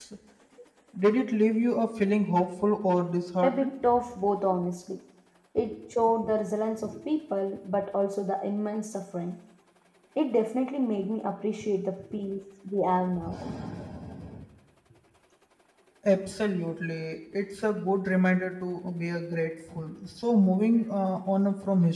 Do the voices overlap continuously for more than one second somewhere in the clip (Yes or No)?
No